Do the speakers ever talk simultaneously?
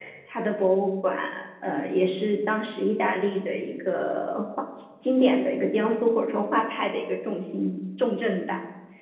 No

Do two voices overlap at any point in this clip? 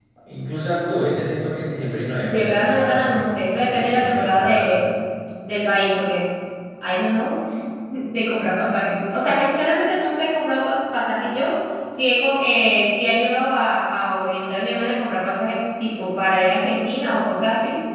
Yes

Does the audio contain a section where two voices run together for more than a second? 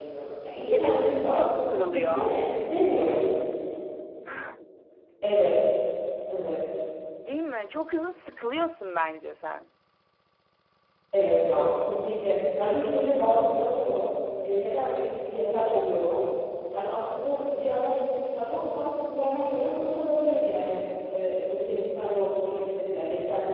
Yes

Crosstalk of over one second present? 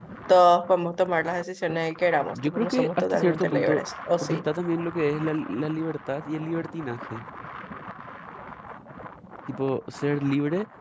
Yes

